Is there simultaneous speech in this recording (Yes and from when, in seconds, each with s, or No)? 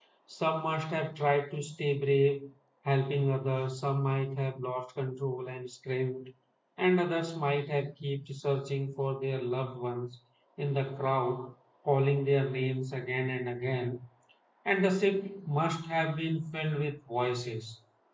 No